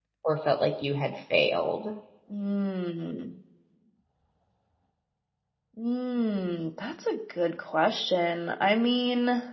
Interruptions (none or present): none